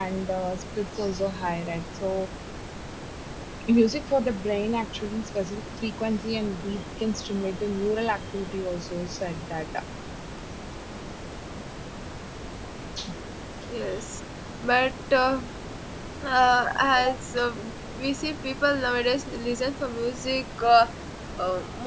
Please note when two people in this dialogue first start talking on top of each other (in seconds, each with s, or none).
none